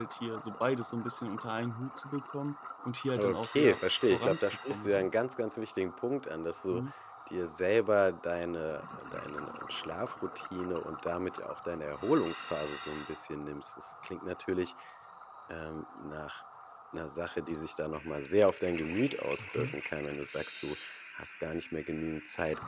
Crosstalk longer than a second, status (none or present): present